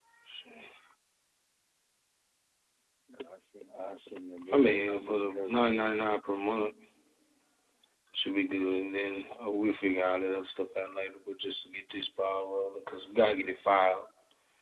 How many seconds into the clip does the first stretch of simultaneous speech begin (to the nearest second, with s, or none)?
5 s